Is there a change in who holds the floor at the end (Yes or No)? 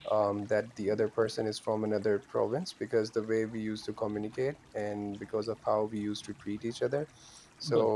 No